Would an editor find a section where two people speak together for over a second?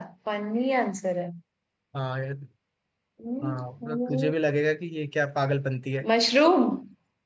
No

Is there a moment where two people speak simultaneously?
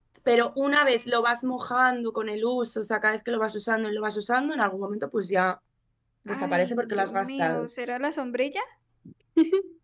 Yes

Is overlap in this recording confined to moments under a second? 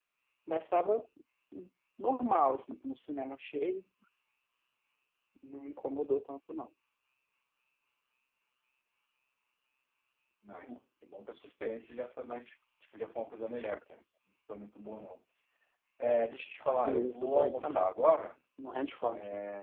No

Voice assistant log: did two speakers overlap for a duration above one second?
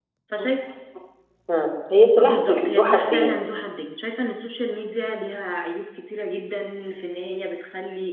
Yes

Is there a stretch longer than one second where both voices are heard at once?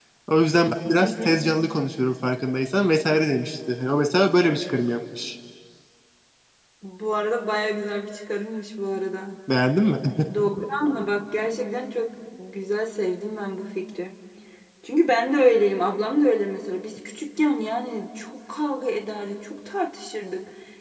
No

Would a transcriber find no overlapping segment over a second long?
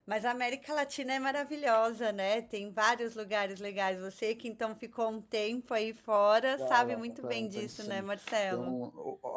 No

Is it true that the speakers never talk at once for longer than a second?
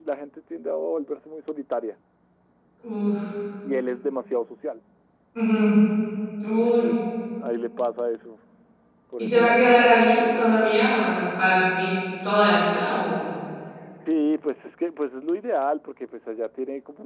Yes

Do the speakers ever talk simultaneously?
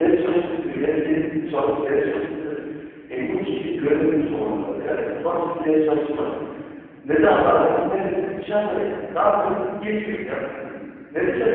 No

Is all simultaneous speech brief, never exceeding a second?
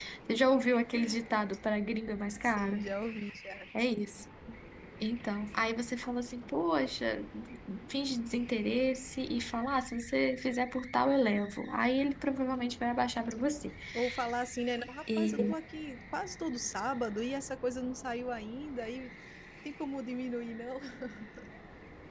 Yes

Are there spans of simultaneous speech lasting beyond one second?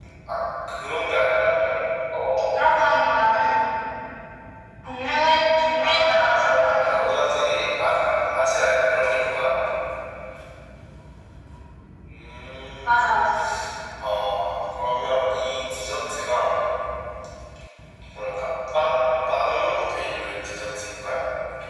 Yes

